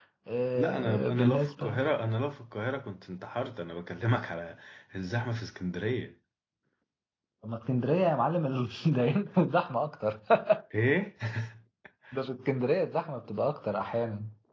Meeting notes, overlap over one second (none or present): present